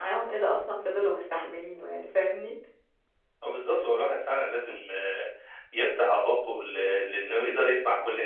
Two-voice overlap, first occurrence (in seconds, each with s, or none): none